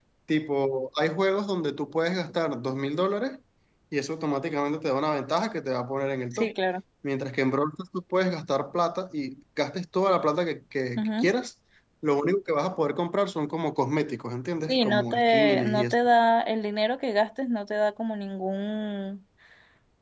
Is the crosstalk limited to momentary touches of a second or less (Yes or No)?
No